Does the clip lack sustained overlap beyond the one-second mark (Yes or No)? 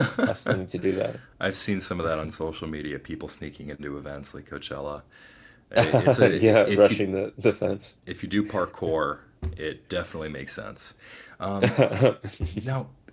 No